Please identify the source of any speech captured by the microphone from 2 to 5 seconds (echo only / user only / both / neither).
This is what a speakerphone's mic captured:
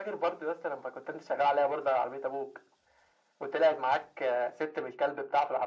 echo only